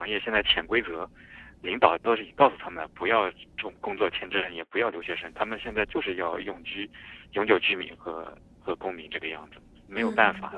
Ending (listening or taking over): taking over